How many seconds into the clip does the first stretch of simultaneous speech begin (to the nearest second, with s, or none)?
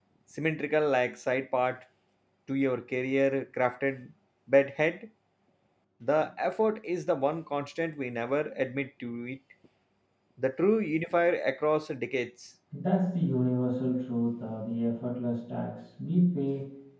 none